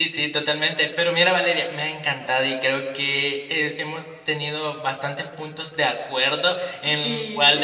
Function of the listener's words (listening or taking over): listening